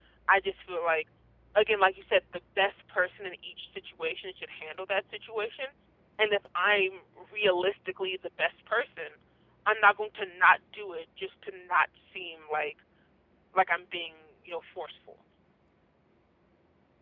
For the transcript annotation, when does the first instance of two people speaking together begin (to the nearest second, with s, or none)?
none